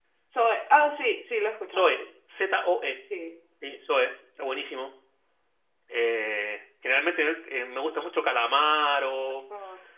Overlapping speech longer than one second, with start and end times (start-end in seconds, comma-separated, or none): none